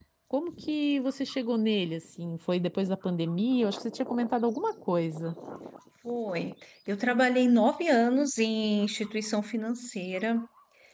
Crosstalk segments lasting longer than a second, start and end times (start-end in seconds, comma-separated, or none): none